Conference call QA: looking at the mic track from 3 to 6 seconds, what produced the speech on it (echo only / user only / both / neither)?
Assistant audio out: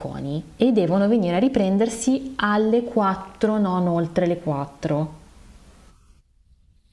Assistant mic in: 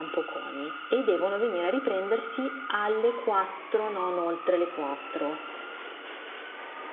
echo only